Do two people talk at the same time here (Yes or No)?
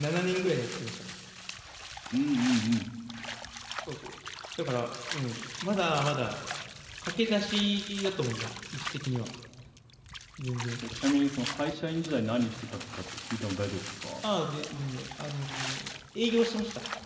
No